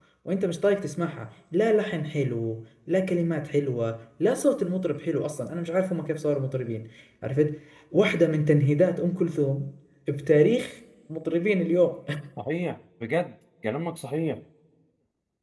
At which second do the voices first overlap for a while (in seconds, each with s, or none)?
none